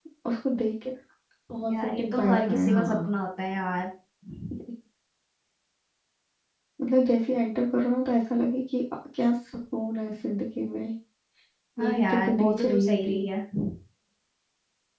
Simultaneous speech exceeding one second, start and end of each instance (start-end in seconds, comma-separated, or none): 1.7-3.1, 11.8-13.2